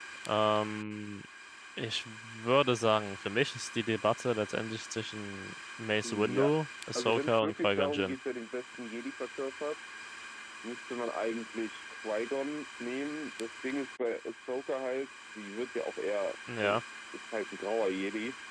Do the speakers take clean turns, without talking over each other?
No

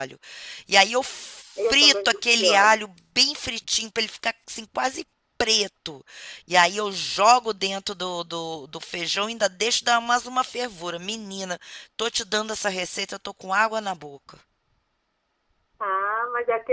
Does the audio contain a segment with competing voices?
Yes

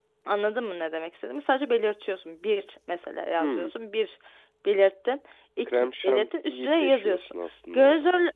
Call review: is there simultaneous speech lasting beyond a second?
Yes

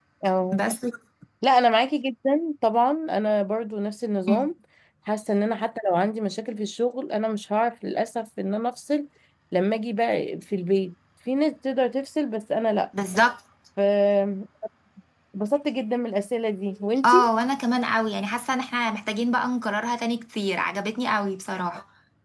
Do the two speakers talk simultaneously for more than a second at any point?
No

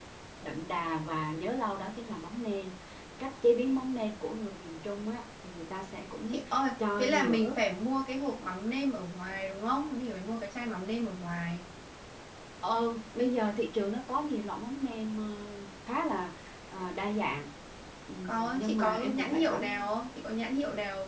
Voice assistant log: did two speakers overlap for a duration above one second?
Yes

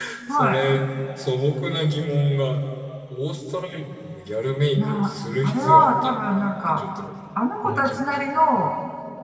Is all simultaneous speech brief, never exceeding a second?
No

